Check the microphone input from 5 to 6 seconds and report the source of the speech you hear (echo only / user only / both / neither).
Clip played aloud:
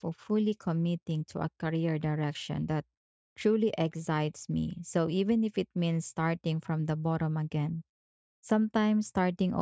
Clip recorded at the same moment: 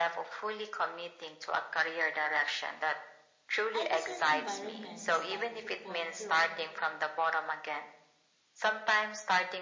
both